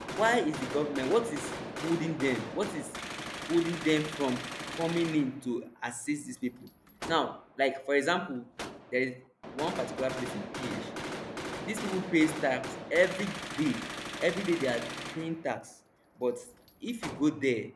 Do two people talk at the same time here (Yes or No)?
No